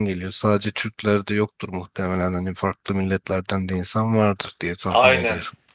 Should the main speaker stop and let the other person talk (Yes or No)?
Yes